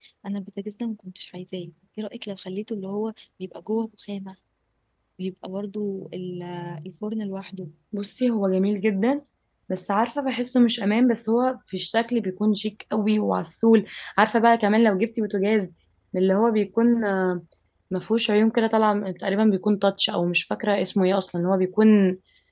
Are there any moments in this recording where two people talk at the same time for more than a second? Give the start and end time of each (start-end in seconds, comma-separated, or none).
none